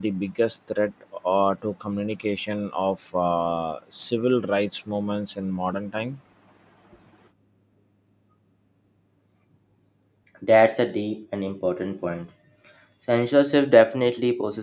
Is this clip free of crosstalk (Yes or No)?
Yes